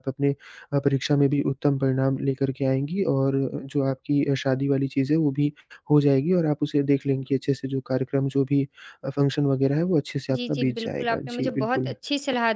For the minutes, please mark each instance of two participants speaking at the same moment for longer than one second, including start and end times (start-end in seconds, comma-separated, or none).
10.3-11.9